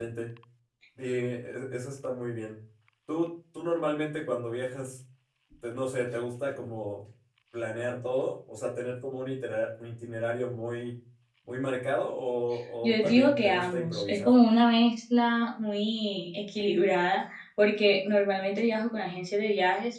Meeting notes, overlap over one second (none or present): present